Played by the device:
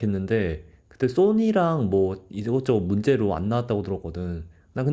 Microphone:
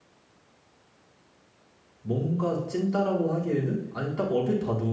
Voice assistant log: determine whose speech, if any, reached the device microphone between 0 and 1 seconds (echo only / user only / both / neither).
neither